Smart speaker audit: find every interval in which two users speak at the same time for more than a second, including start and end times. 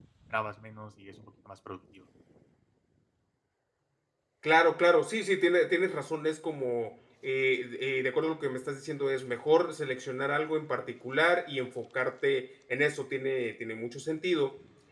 none

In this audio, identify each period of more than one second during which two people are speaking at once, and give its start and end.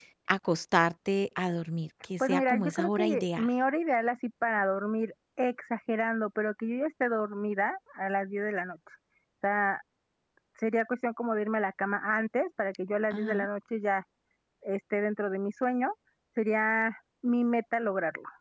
2.2-3.5

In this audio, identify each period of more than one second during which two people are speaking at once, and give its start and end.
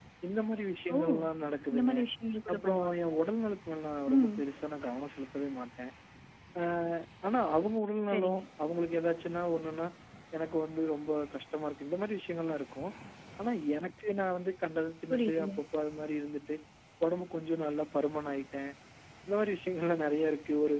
none

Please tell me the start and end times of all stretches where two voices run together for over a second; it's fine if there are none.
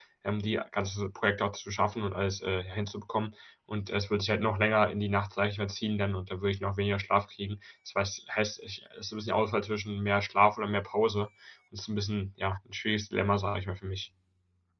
none

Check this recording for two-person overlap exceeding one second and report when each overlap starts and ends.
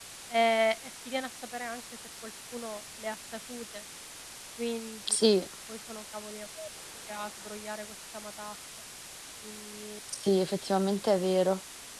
none

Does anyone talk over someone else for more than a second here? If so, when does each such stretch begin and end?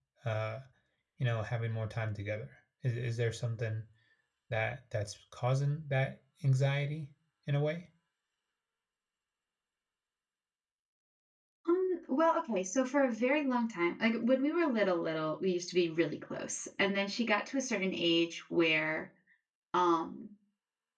none

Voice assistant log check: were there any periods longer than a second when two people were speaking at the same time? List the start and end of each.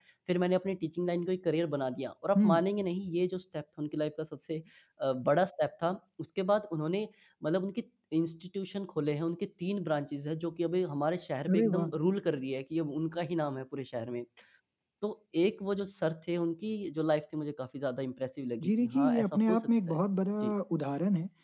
18.6-20.0

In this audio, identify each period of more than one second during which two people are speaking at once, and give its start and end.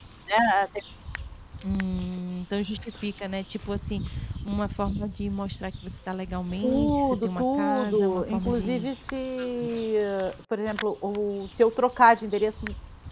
6.6-8.8

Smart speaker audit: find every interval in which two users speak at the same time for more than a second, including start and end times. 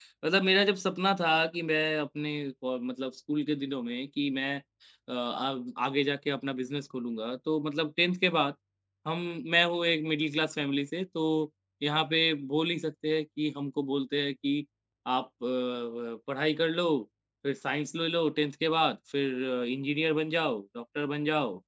none

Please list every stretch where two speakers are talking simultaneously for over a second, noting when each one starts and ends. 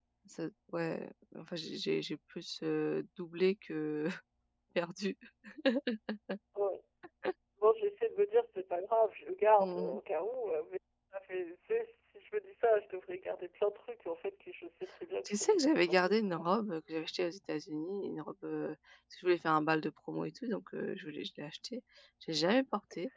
15.2-16.5

